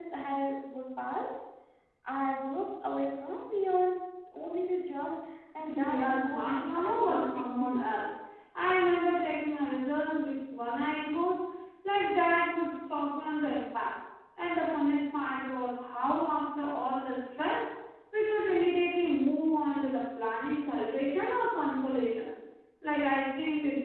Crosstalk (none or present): present